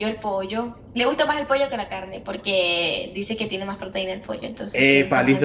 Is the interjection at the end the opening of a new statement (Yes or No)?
Yes